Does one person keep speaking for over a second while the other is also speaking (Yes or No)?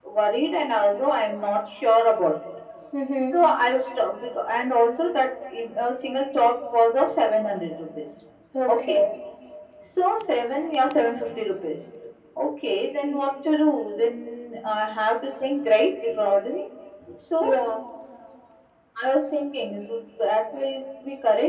No